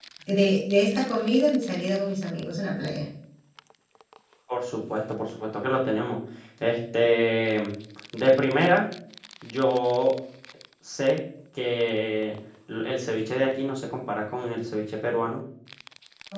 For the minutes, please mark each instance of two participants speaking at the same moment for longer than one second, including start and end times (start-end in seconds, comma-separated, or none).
none